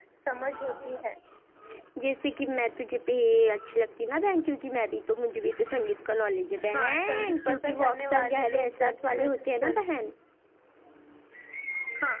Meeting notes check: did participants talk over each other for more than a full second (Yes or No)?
Yes